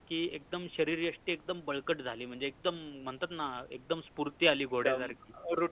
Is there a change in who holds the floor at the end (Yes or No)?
Yes